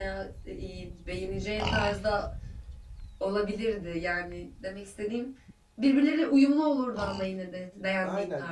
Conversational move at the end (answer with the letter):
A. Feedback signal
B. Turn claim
B